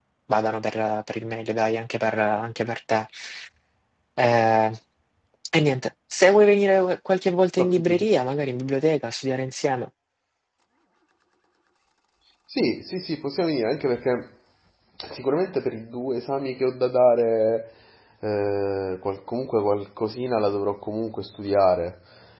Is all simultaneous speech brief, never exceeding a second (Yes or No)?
Yes